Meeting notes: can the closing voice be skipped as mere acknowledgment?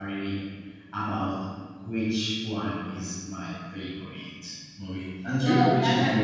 No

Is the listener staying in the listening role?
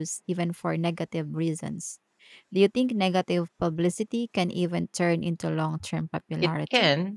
No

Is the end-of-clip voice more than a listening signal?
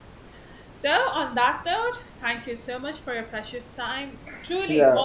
Yes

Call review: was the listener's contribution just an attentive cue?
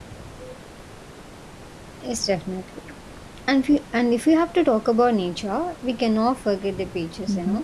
Yes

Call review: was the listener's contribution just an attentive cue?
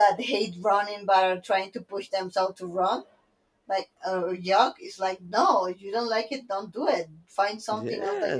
No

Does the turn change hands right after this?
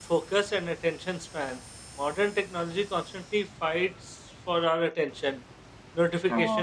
No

